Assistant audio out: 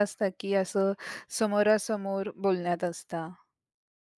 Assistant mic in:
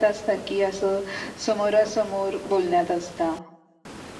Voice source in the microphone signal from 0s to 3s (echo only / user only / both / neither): echo only